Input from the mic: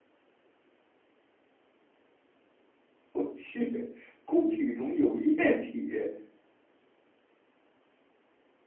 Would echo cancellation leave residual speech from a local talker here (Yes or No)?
Yes